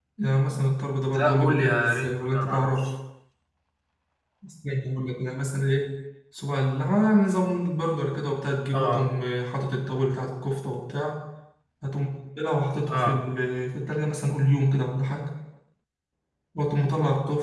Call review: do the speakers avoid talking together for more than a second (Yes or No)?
No